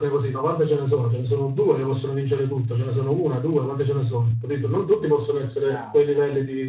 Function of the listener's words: listening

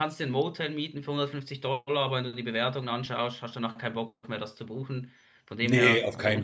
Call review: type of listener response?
taking over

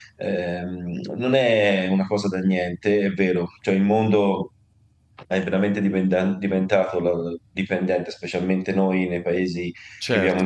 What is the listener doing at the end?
taking over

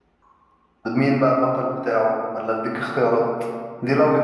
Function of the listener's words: listening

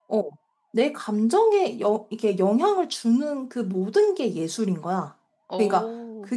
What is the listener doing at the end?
listening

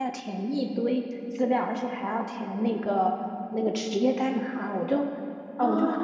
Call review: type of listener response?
listening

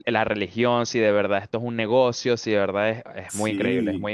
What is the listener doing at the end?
taking over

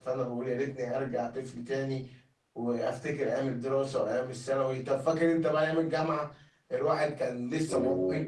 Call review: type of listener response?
listening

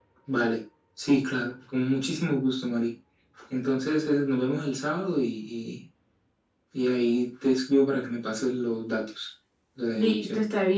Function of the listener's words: taking over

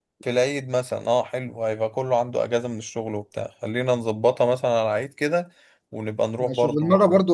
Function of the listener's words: taking over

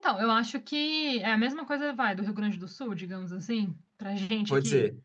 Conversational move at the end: taking over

